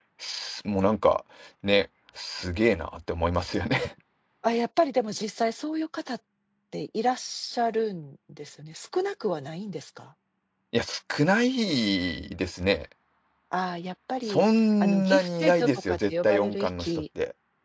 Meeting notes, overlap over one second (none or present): present